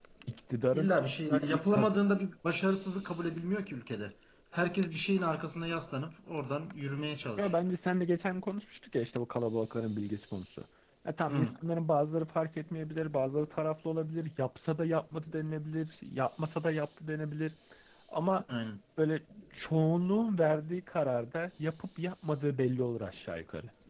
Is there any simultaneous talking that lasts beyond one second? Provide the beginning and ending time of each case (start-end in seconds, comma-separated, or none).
0.7-2.0